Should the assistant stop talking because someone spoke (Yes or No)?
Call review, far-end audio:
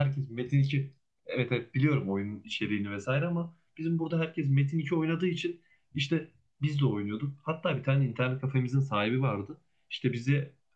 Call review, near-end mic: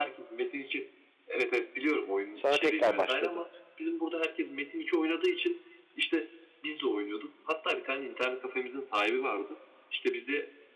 Yes